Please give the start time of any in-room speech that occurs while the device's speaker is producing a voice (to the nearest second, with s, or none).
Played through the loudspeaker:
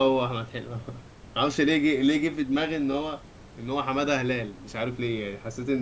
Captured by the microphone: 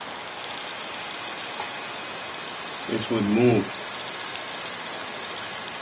3 s